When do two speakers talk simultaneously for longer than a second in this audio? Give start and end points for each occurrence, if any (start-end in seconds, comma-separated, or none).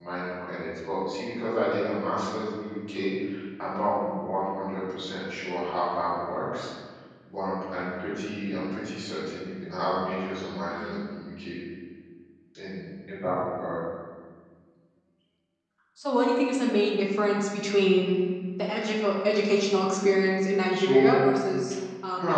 none